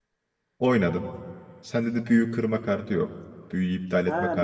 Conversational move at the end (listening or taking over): taking over